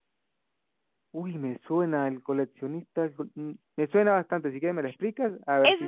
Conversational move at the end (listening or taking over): taking over